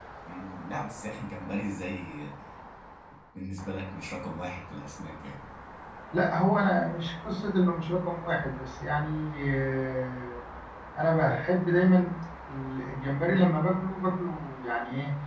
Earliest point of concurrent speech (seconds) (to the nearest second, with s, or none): none